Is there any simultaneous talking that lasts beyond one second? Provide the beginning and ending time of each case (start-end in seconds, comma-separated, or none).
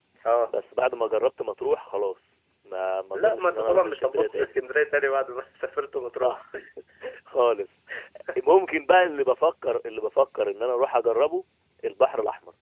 3.1-4.5